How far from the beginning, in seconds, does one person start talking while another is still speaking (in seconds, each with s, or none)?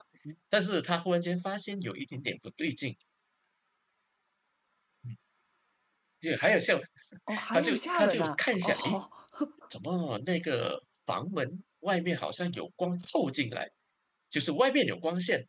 7.5 s